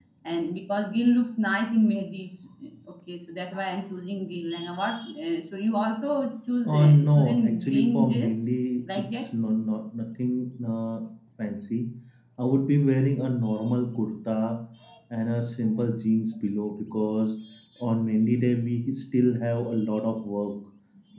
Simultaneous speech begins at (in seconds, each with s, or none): 6.7 s